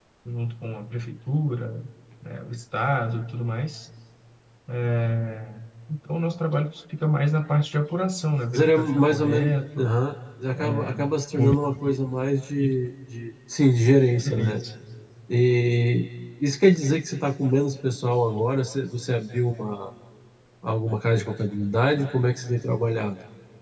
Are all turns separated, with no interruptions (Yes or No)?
No